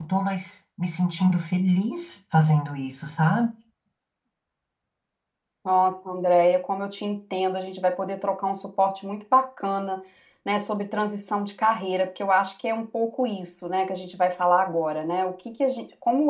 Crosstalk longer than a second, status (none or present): none